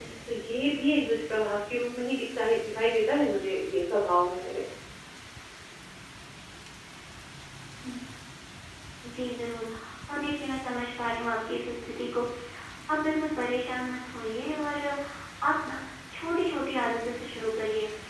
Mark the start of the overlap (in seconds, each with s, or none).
none